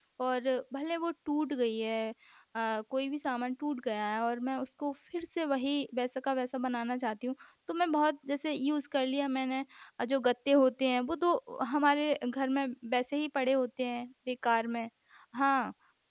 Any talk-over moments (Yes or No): No